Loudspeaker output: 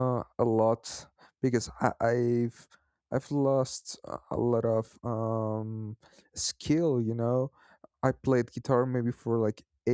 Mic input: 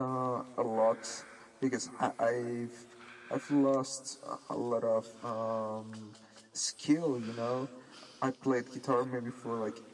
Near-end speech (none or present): none